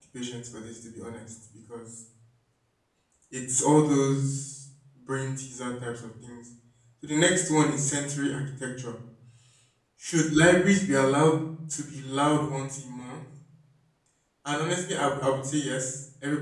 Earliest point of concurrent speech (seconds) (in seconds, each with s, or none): none